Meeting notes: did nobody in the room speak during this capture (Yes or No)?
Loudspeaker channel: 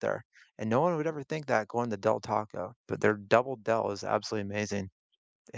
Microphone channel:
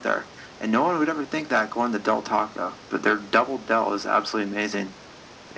Yes